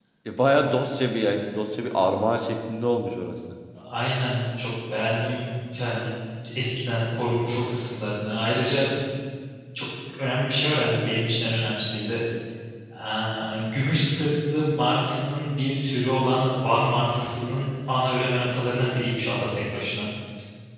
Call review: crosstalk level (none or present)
none